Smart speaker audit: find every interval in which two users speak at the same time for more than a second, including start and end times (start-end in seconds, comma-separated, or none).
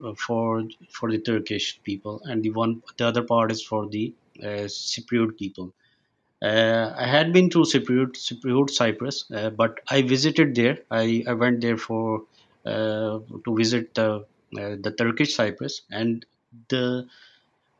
none